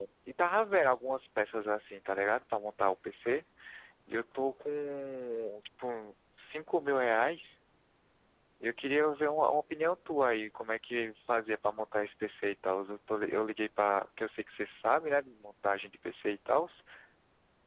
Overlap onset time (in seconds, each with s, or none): none